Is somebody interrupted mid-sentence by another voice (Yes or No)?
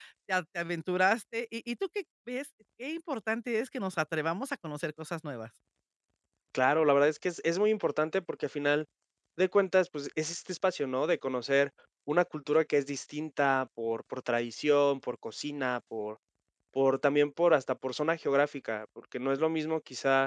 No